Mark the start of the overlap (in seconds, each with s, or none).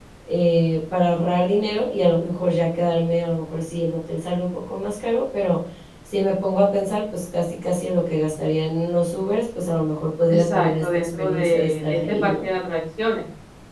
10.3 s